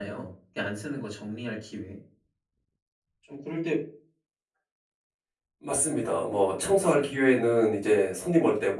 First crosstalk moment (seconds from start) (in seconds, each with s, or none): none